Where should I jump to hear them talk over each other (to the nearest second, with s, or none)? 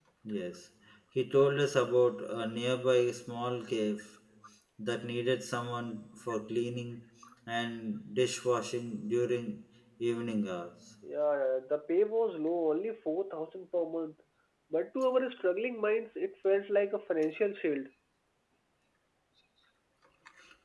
none